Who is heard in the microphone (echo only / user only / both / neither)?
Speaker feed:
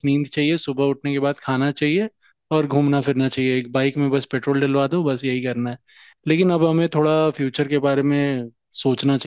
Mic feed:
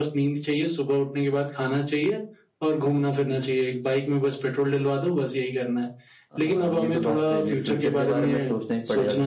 both